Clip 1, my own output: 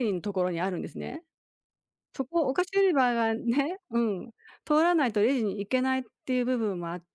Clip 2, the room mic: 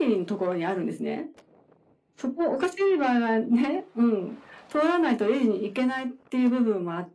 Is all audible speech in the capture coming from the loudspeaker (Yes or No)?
Yes